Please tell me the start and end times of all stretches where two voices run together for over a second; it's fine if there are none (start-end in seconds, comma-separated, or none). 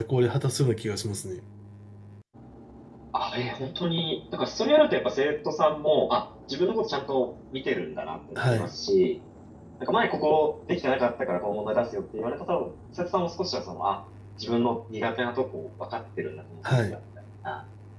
none